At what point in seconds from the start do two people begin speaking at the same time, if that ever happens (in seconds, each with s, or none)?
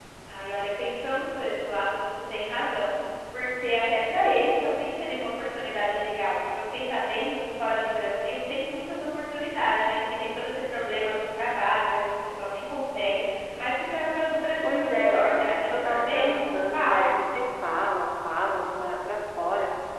14.6 s